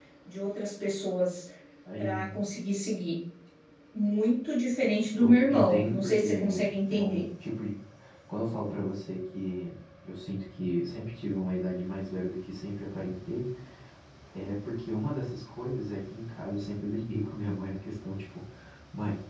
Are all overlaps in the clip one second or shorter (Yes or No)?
No